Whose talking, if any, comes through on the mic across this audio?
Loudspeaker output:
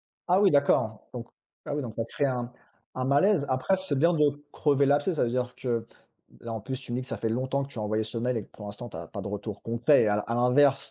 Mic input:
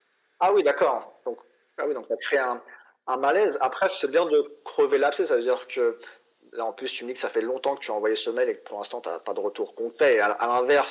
echo only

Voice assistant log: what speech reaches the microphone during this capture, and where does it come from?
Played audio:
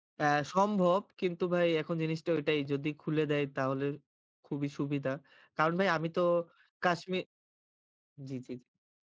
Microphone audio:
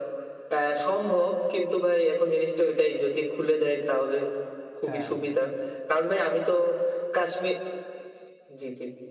both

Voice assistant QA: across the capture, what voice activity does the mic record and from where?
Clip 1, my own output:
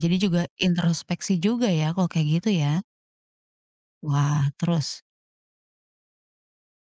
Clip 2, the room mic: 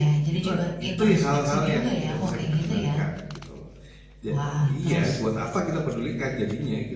both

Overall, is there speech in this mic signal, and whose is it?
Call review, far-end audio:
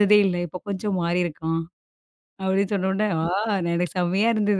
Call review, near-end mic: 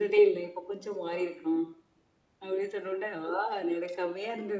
echo only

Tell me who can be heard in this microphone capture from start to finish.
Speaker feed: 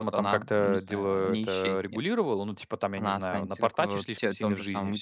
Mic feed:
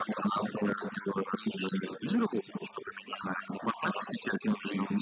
echo only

